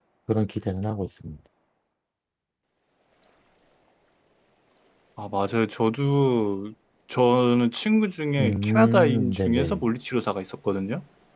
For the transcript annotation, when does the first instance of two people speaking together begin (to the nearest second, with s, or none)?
8 s